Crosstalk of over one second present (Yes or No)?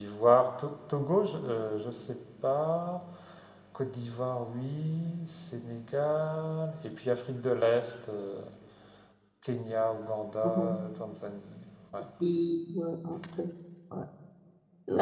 No